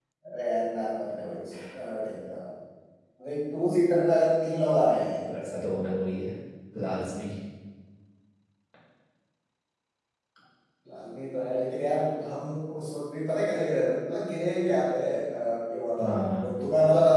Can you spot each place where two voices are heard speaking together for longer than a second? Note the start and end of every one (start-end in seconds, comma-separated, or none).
none